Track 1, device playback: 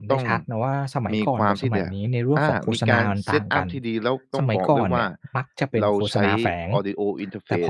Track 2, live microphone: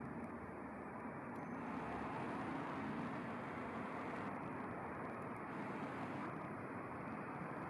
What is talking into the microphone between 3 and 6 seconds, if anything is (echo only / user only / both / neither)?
neither